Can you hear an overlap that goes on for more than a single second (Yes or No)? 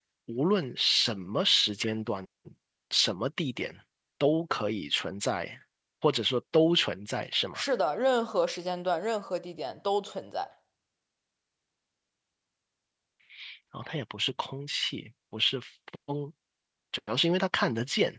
No